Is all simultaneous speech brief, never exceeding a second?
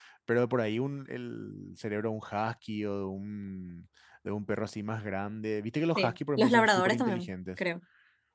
No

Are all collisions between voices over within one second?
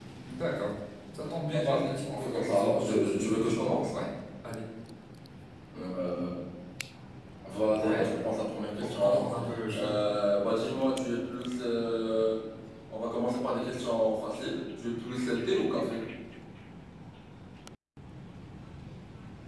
No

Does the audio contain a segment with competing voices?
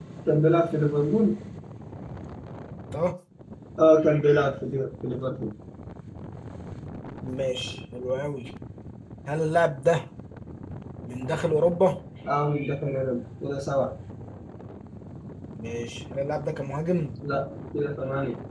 No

